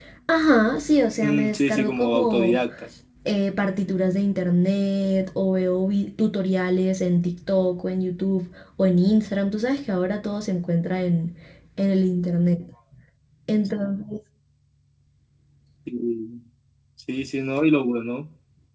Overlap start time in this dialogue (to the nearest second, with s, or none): 1 s